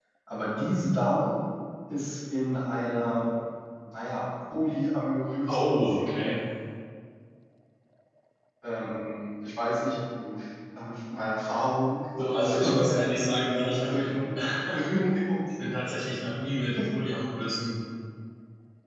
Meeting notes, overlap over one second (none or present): present